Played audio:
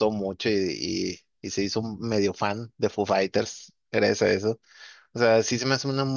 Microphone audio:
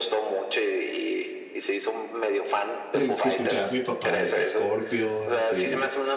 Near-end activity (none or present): present